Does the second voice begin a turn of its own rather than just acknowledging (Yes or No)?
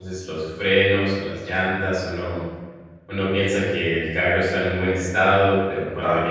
No